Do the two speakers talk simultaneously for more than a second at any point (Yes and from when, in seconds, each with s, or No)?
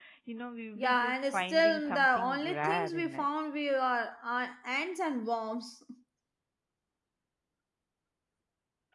Yes, from 0.8 s